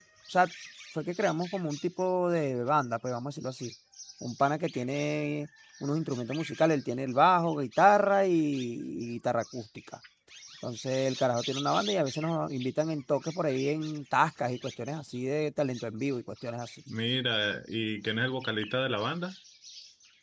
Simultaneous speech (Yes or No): No